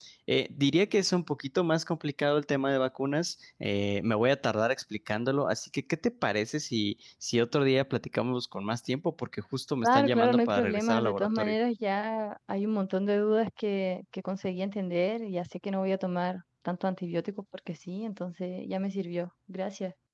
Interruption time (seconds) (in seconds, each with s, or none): 9.8 s